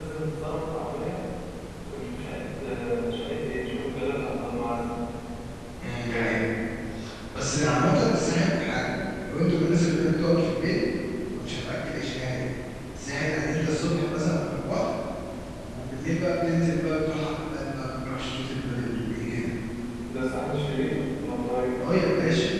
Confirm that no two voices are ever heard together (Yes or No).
Yes